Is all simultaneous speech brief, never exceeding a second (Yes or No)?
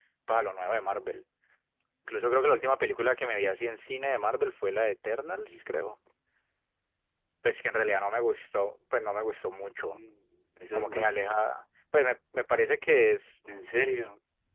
Yes